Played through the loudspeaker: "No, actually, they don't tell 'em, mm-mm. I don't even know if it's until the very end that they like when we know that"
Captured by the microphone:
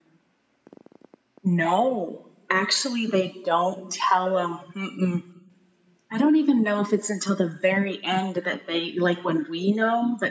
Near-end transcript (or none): none